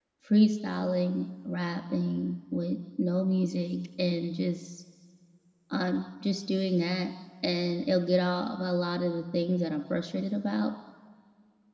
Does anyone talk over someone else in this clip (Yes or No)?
No